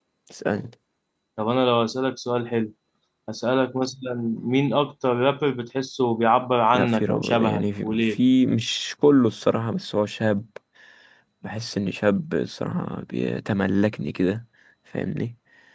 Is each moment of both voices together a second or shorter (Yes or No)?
No